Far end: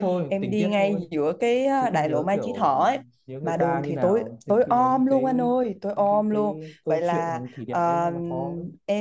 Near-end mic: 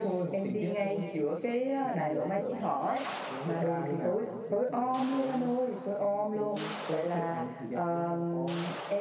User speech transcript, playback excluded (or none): none